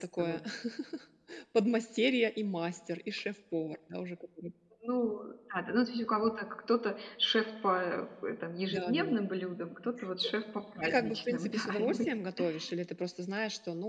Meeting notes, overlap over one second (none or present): present